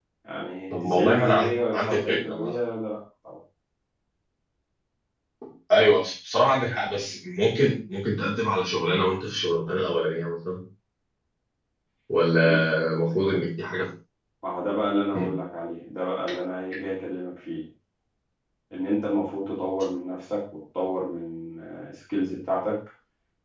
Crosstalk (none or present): present